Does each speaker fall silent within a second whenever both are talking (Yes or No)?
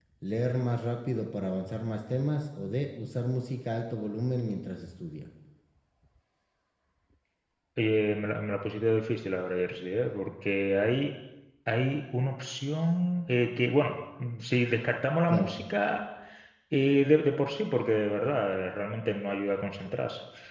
Yes